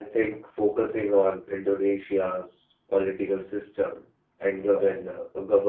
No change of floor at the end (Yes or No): Yes